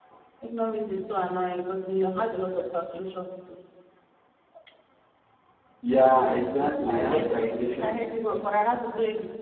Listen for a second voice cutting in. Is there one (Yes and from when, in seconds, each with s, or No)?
Yes, from 6.8 s